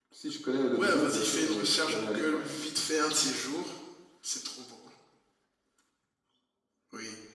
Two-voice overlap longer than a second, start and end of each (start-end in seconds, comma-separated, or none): 0.7-2.4